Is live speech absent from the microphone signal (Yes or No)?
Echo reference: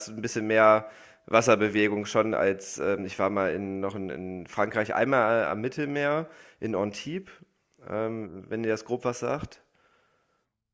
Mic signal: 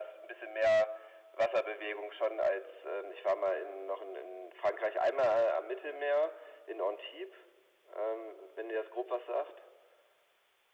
Yes